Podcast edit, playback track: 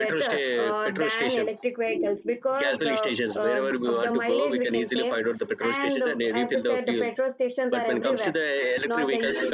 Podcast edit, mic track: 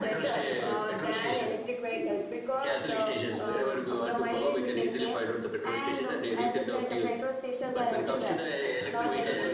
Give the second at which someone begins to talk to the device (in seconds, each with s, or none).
none